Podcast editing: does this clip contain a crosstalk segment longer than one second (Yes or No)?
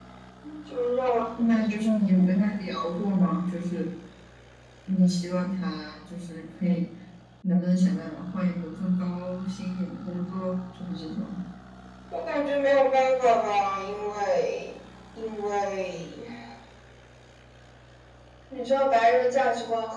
No